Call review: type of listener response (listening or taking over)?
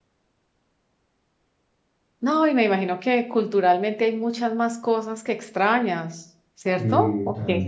taking over